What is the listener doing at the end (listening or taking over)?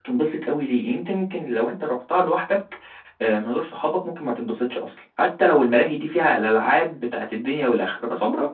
listening